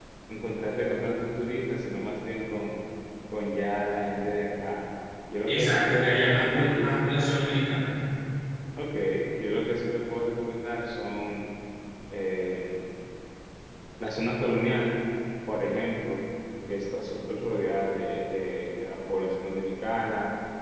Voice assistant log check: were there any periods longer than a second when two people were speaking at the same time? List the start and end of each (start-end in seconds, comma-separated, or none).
5.5-6.9